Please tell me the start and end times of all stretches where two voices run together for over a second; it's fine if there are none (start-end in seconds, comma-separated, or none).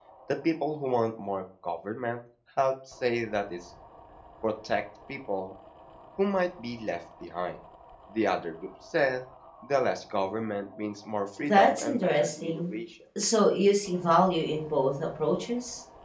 11.5-12.7